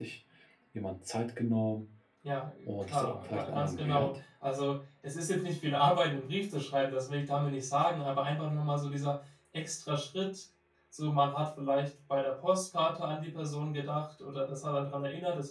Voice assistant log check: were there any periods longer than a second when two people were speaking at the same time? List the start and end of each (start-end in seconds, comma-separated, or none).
2.7-4.1